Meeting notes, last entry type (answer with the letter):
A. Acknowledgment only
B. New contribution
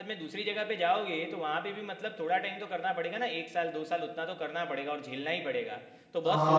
B